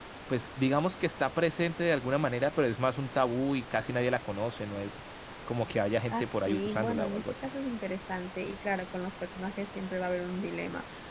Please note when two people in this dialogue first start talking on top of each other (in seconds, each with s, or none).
6.1 s